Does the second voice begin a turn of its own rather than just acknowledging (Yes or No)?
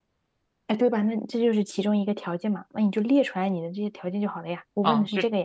Yes